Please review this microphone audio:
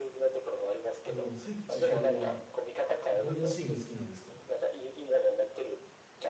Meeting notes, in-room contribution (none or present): present